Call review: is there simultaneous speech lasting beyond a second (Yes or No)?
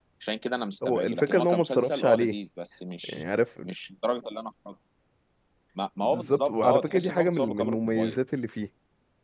Yes